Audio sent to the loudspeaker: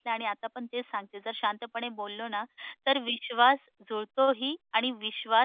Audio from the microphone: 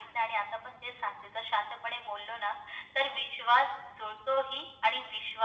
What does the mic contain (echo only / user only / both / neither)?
echo only